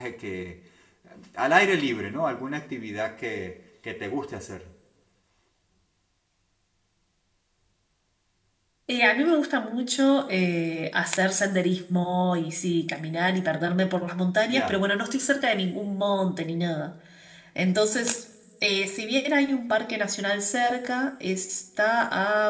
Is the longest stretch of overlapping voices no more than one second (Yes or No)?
Yes